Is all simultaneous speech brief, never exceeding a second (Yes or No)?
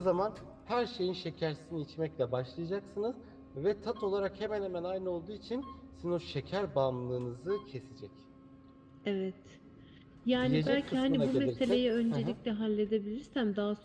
No